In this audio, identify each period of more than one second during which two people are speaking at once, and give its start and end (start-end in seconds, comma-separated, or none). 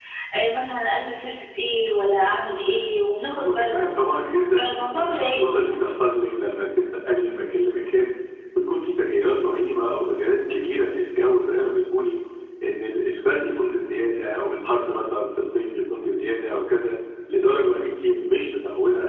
4.5-5.7